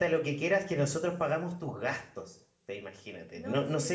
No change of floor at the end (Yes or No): Yes